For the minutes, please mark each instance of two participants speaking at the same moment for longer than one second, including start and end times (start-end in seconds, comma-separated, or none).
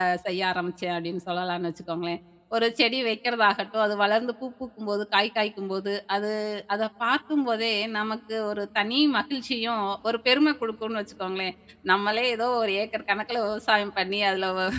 none